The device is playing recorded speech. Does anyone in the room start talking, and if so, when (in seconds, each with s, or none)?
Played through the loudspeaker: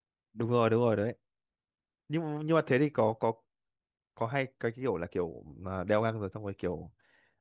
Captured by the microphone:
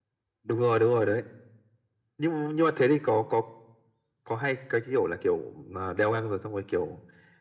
none